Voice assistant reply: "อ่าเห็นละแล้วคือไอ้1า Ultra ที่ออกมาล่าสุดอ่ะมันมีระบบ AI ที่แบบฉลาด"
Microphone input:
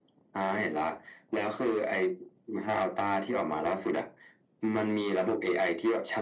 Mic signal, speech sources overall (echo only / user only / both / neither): echo only